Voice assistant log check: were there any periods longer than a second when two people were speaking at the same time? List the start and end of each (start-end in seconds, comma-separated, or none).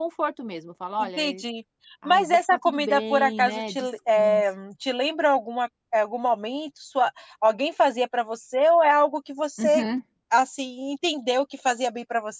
2.0-4.4